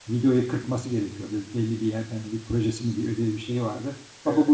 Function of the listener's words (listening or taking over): listening